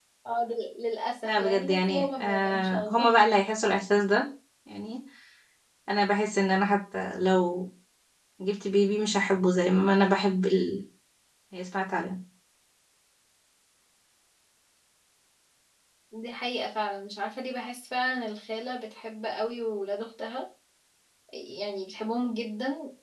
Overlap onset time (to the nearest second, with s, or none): 1 s